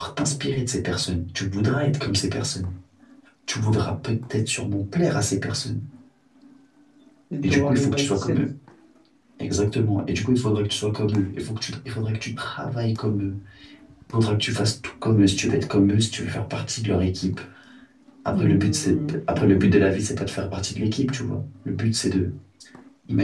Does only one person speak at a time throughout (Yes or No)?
No